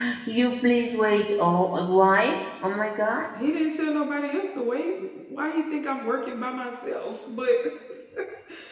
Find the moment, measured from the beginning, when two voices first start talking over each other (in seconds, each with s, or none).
none